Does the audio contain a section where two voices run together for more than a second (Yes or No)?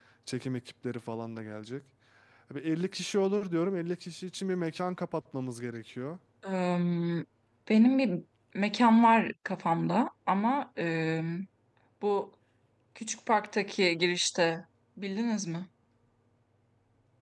No